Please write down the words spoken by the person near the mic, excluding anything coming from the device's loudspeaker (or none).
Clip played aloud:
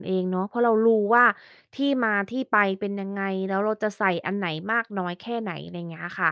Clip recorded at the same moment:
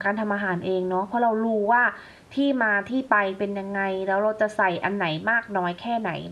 none